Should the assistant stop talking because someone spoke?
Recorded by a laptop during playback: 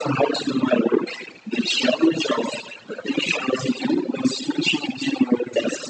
No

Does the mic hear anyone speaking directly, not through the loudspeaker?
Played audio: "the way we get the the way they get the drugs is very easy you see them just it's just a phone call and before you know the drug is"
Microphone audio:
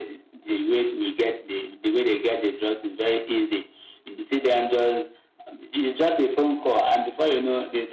No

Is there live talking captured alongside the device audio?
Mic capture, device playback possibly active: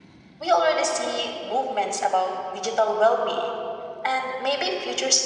Yes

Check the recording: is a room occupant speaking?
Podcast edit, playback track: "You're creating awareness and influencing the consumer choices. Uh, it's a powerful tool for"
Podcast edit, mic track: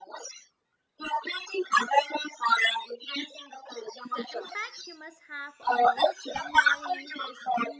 Yes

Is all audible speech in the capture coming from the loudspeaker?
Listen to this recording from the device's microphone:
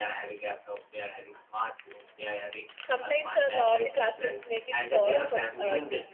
No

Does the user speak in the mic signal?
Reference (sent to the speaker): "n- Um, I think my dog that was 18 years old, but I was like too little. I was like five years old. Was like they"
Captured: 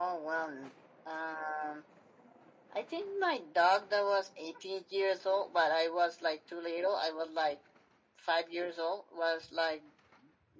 No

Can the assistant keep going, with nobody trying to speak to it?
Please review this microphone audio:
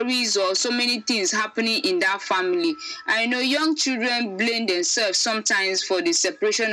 Yes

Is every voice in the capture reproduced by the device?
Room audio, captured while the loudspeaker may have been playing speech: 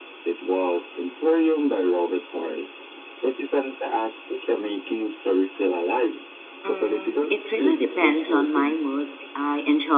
No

